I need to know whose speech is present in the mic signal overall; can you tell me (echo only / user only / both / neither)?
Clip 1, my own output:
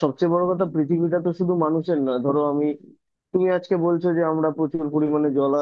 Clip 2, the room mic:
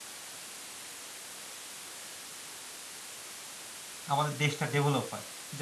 user only